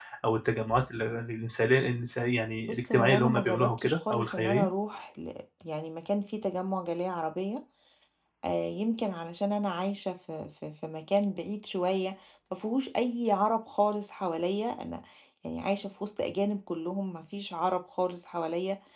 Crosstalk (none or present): present